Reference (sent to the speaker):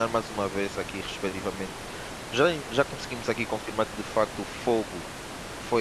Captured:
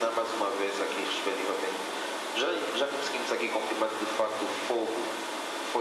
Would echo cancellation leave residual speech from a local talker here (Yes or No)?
No